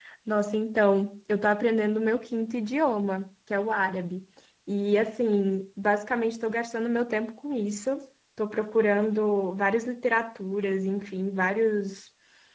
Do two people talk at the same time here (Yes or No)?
No